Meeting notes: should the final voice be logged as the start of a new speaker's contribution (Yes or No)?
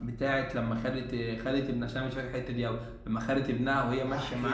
Yes